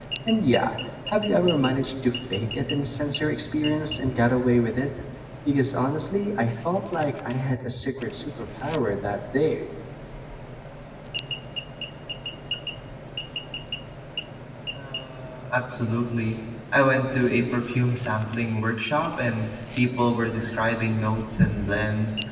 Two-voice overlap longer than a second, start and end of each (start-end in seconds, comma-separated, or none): none